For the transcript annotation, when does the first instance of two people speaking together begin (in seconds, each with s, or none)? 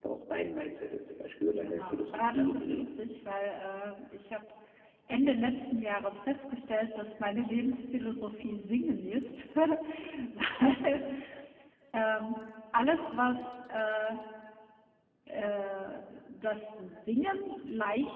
1.5 s